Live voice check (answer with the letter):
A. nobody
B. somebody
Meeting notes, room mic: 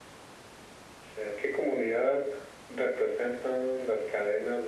A